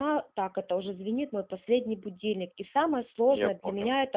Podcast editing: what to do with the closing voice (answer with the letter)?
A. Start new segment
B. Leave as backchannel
B